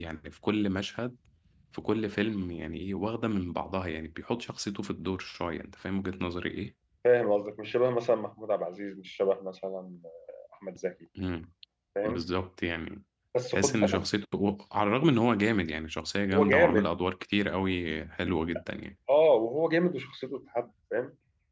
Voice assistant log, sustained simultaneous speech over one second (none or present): none